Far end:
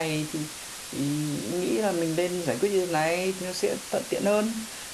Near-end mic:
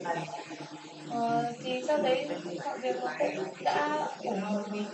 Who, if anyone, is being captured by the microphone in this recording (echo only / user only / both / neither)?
both